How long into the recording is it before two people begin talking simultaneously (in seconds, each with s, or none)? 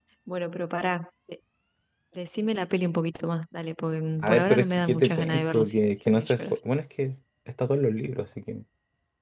4.2 s